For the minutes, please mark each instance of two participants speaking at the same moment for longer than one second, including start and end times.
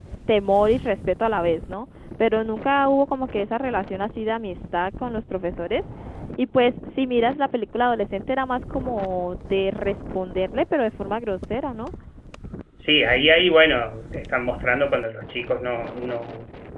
none

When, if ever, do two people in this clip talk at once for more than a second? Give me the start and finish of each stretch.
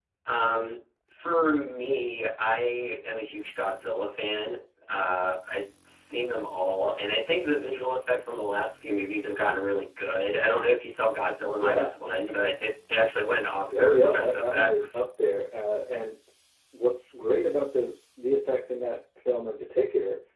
13.7-15.0

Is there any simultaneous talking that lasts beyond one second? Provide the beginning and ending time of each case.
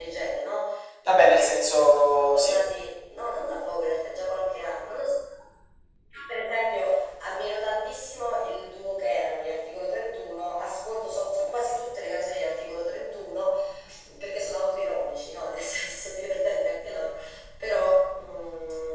none

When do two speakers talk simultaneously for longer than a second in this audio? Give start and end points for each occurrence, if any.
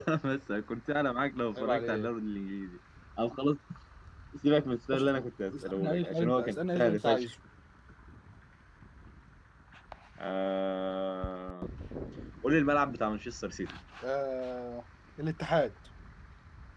5.6-7.2

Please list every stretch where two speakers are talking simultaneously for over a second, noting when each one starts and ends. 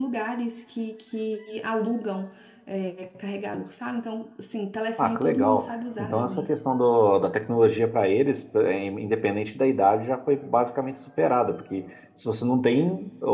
5.0-6.5

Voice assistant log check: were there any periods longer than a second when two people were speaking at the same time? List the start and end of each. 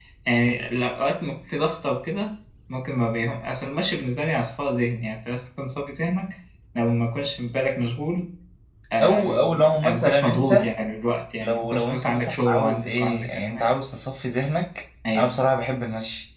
9.0-10.7, 11.4-13.6

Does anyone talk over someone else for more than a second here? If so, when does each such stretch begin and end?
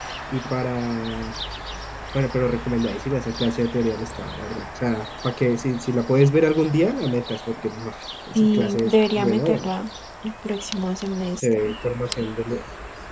8.3-9.7

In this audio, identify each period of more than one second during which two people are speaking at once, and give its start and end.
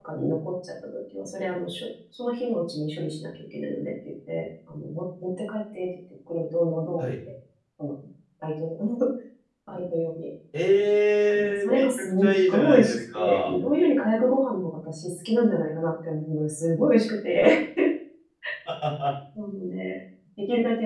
11.3-13.6

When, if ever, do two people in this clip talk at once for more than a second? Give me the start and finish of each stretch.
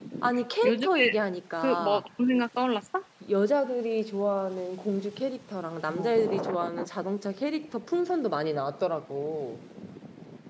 none

